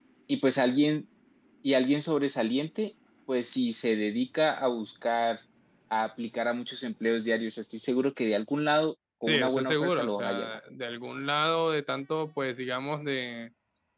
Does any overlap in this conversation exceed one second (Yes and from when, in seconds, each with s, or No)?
Yes, from 9.2 s